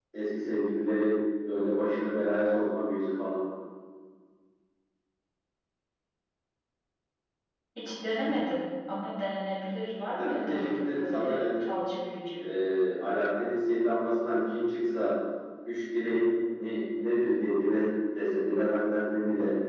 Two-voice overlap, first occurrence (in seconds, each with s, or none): 10.1 s